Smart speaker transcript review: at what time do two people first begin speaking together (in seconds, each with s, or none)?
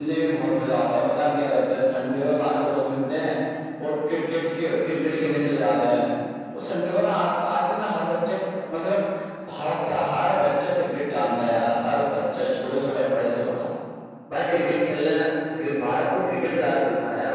none